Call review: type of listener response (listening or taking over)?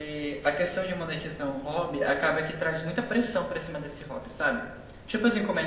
listening